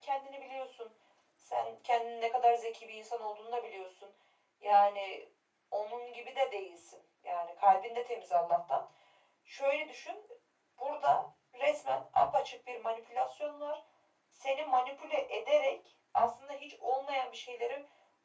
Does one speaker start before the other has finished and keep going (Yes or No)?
No